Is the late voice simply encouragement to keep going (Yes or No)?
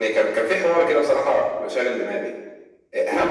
Yes